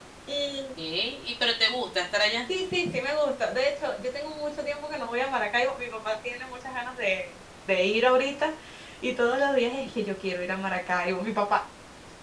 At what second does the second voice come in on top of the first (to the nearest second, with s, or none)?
none